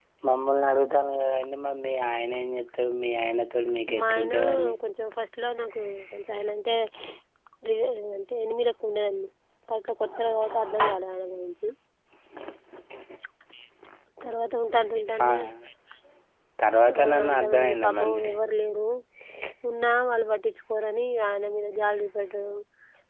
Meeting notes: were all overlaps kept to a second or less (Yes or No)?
No